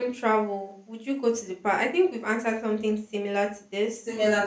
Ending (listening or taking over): taking over